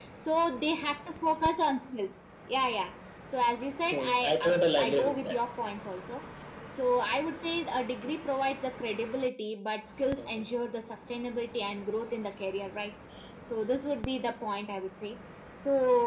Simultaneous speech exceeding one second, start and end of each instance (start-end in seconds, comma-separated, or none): 3.9-5.3